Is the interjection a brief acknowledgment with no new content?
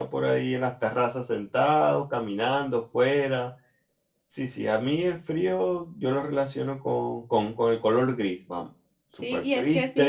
No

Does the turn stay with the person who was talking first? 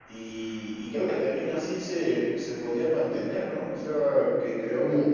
No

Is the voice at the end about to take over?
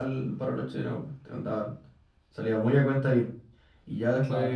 No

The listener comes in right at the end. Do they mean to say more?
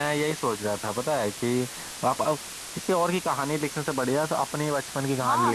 Yes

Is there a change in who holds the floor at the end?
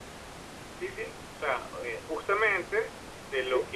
No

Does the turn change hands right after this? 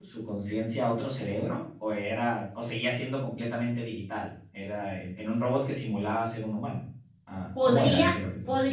Yes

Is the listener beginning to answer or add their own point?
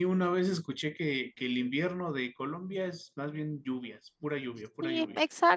Yes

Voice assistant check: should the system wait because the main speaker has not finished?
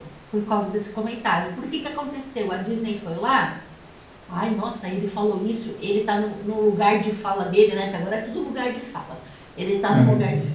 Yes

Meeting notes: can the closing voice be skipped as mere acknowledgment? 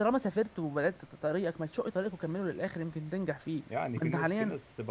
No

